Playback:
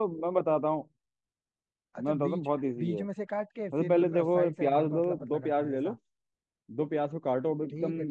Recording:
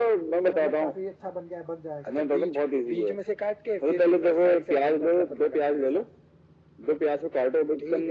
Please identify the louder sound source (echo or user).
echo